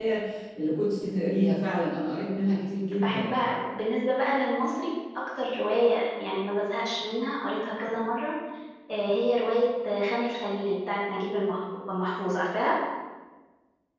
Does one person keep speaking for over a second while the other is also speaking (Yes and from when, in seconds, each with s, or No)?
No